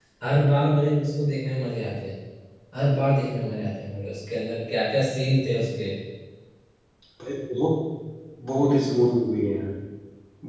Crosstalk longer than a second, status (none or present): none